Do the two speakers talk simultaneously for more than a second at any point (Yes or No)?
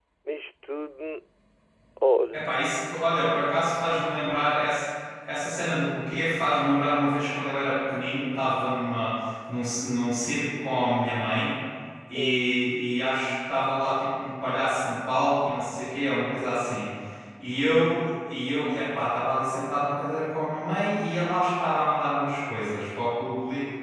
No